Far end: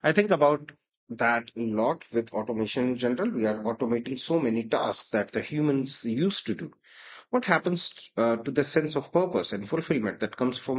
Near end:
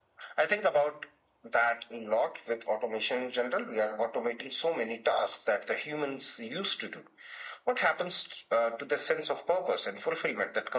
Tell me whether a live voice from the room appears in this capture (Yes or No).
No